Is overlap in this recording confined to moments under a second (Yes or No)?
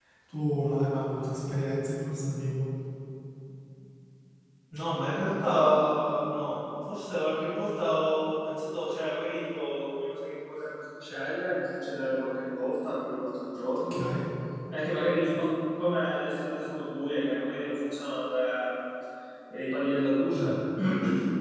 Yes